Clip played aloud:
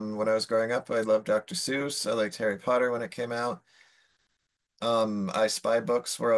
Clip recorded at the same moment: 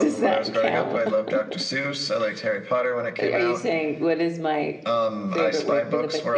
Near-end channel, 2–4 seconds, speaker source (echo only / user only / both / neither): both